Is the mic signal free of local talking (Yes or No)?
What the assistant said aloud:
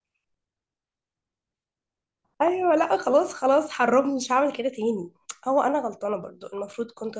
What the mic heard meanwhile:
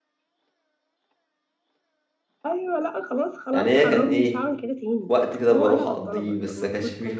No